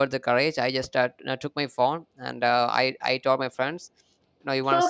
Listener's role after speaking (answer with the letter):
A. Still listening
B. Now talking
B